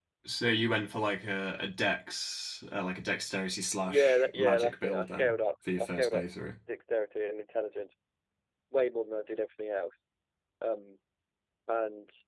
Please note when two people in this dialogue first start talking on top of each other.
4 s

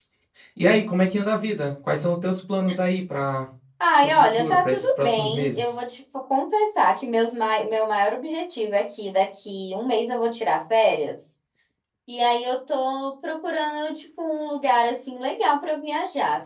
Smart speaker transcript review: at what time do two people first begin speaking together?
4 s

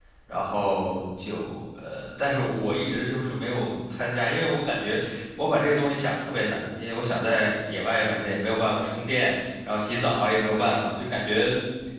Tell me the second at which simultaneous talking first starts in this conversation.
none

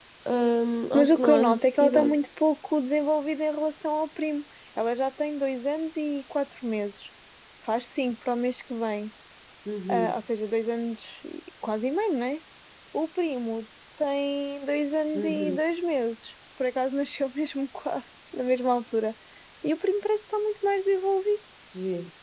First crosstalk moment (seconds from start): 1 s

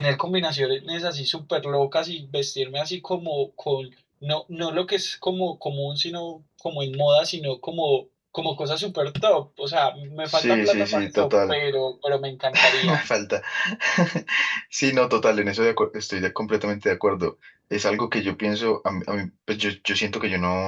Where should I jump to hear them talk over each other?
10 s

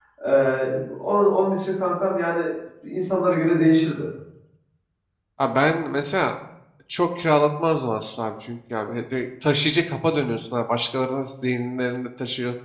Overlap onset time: none

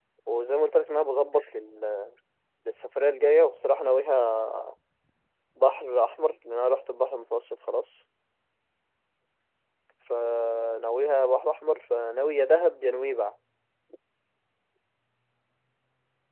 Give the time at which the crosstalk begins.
none

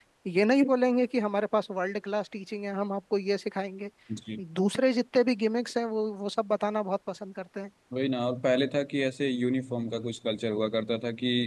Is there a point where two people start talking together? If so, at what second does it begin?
none

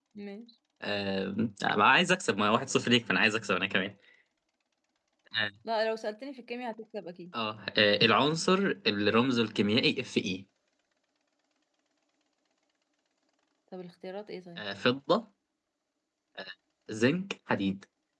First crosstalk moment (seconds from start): none

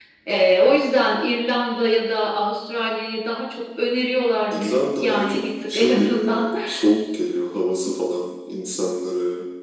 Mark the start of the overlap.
5 s

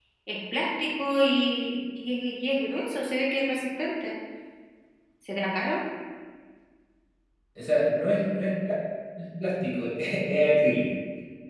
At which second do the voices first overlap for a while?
none

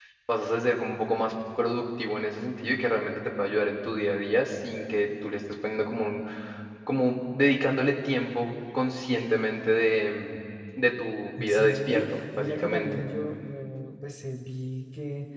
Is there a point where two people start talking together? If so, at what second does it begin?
11 s

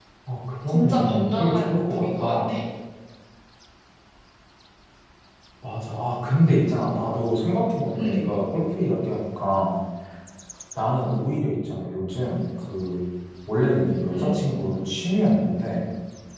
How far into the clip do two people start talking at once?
1 s

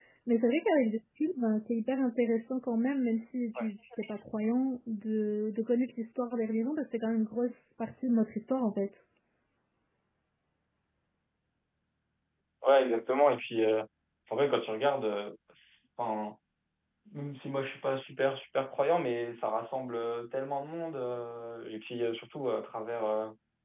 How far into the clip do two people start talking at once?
none

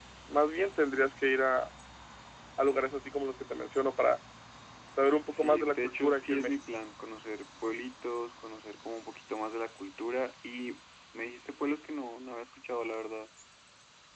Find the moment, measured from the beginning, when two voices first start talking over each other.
5 s

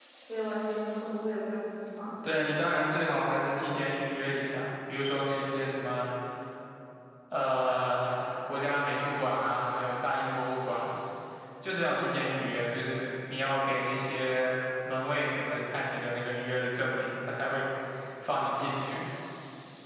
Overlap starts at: none

